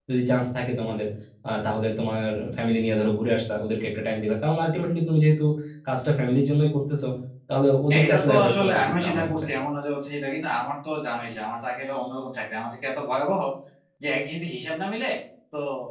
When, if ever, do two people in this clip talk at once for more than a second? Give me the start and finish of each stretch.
7.9-9.3

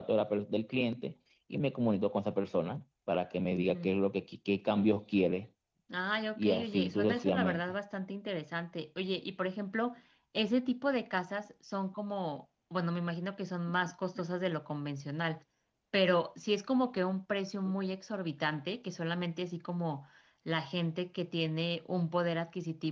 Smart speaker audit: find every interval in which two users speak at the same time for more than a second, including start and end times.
6.4-7.6

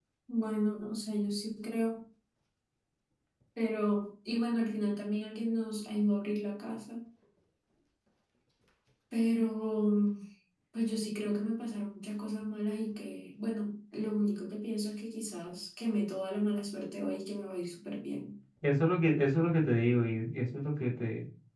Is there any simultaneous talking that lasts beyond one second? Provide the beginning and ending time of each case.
none

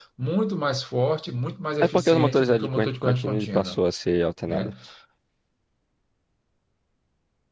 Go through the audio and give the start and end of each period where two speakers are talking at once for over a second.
1.9-3.8

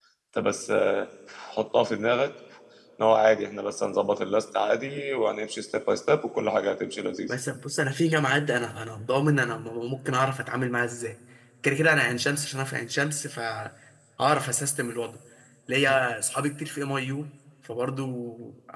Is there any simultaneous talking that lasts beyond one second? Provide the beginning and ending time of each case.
none

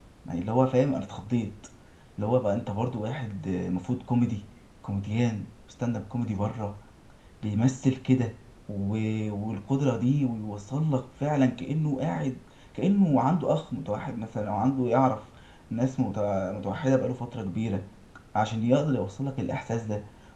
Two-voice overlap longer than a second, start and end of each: none

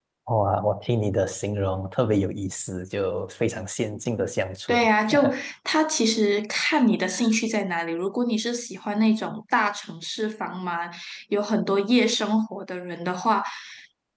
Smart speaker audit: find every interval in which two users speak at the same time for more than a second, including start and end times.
none

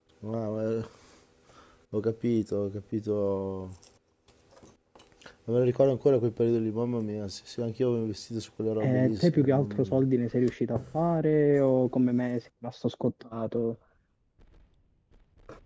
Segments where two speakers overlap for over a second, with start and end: 8.8-10.0

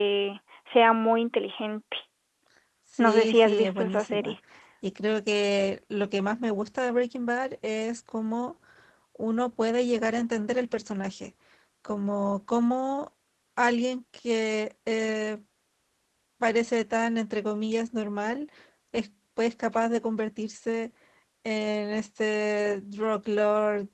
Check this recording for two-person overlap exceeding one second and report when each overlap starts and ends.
3.0-4.3

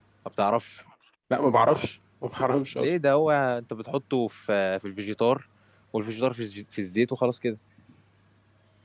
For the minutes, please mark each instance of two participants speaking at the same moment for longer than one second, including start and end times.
none

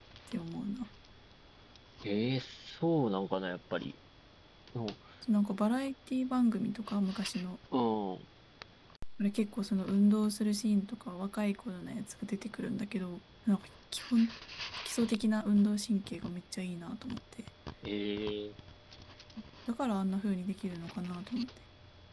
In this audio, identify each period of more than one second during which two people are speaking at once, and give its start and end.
none

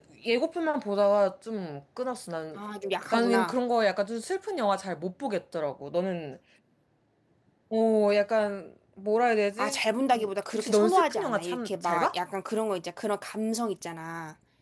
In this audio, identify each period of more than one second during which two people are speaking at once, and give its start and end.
10.5-12.2

